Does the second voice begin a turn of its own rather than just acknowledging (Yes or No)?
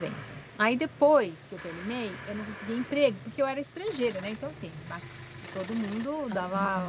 No